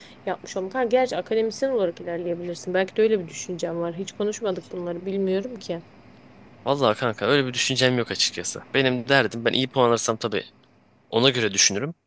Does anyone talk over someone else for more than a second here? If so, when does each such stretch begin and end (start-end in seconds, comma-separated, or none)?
none